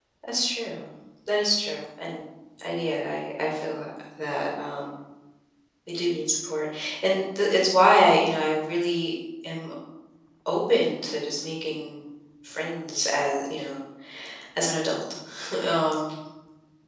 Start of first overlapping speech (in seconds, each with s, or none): none